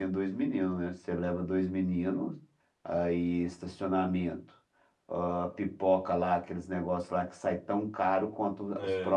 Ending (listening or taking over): listening